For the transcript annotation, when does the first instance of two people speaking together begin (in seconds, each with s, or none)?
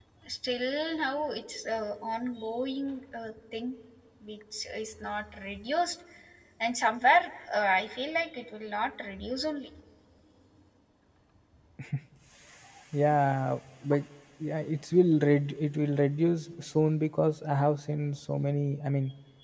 none